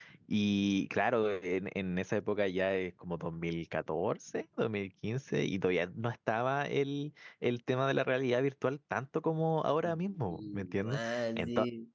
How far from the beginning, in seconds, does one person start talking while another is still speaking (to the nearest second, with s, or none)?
10 s